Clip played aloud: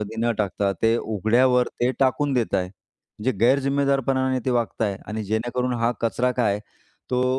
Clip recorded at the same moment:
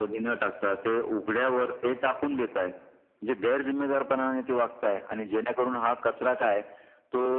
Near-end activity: none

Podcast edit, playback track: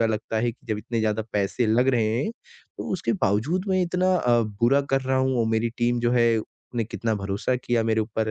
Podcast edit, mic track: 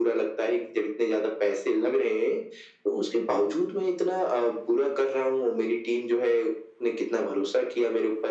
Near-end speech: none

